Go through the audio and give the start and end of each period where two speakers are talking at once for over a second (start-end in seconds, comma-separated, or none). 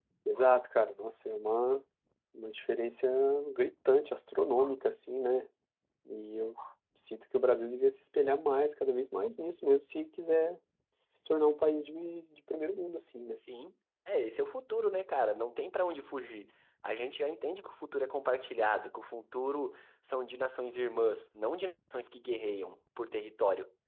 none